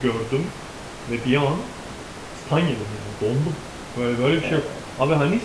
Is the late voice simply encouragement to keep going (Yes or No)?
Yes